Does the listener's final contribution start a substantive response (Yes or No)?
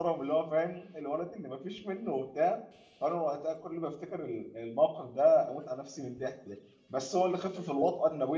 No